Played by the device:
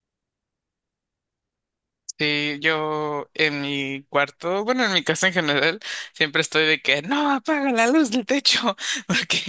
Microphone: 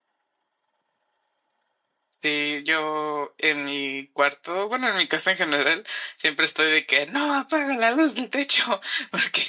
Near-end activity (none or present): none